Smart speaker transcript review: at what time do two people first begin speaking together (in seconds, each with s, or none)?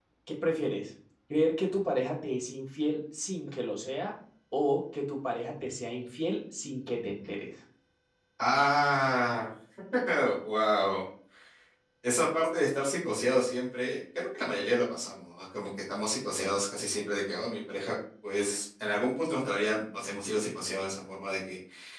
none